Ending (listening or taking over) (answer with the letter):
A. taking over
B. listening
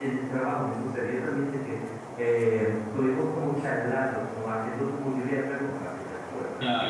A